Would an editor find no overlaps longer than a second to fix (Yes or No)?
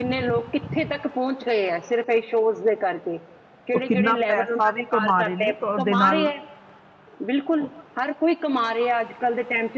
No